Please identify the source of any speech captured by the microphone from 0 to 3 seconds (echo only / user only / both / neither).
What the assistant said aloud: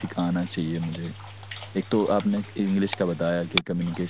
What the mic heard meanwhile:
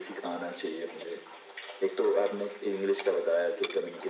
echo only